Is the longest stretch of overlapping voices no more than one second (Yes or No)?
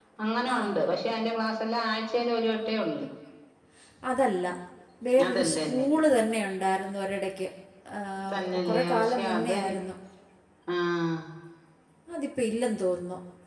No